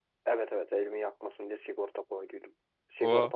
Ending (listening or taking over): listening